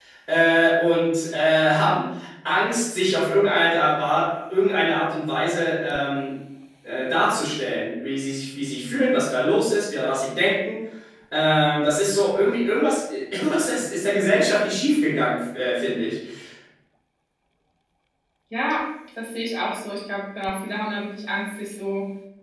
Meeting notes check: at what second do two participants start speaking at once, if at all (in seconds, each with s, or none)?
none